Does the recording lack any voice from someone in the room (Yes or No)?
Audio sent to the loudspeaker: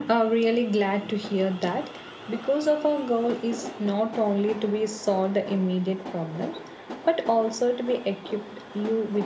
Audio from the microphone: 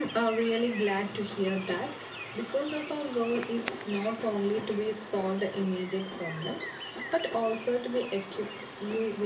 Yes